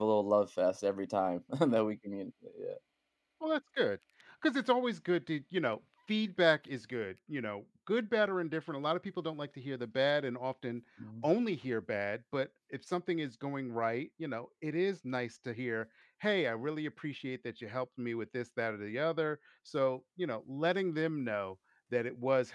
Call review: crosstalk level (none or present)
none